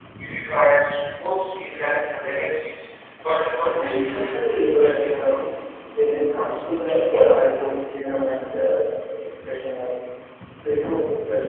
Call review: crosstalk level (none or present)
present